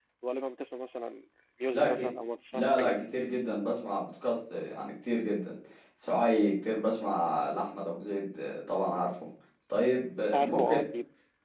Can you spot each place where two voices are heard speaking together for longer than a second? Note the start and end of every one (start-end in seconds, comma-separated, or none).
none